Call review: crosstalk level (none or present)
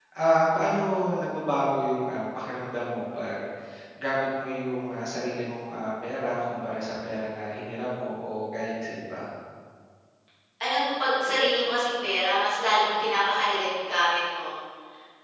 none